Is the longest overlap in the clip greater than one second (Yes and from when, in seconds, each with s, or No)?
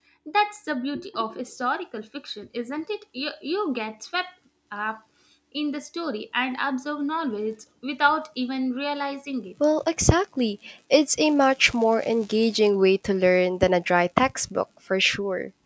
No